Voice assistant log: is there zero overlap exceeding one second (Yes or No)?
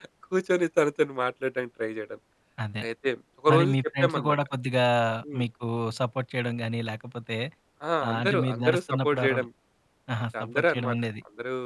No